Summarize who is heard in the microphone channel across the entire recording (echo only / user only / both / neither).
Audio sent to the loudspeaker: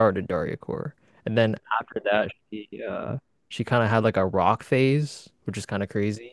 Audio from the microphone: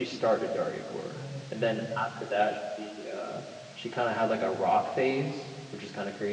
both